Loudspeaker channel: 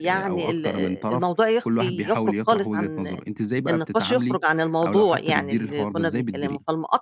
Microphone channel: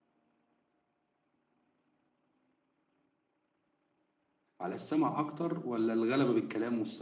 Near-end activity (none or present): present